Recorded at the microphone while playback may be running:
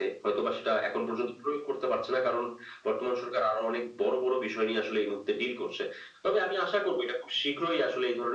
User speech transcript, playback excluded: none

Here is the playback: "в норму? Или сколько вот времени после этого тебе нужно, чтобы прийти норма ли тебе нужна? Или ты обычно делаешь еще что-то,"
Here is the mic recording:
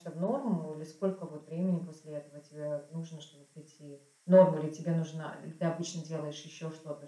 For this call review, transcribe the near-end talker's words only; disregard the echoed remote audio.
none

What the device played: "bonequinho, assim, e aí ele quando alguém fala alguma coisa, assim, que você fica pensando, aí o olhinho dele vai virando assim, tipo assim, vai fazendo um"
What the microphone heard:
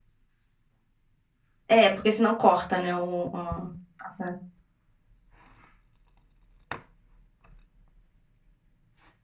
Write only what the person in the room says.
É, porque senão corta, né, o ah, a parte.

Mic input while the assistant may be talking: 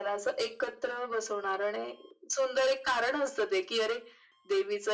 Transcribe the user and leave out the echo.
none

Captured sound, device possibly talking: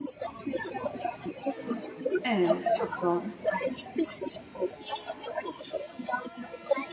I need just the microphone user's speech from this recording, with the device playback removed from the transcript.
Evet, çok doğru.

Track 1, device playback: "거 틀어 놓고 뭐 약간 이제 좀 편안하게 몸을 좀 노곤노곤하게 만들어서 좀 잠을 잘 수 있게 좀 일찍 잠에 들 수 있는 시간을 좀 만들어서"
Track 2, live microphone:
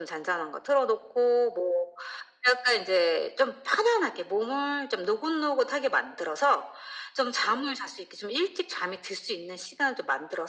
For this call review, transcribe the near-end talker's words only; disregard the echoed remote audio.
none

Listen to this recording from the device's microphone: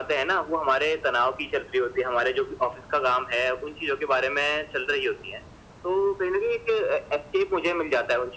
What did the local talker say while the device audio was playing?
none

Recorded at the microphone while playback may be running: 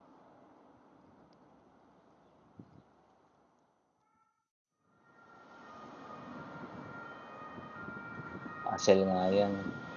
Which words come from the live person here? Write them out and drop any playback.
Hassle nga yan.

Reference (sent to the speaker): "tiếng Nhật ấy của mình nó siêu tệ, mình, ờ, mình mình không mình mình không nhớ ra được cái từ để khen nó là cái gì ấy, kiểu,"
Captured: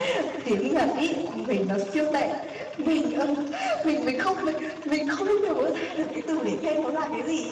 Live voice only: none

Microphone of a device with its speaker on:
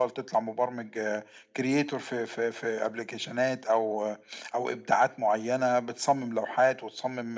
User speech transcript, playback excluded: none

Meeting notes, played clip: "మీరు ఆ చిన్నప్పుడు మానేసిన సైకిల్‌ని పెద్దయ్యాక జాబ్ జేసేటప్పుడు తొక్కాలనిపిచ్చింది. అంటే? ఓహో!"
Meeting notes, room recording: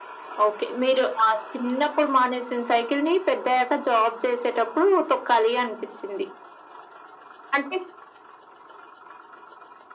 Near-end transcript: none

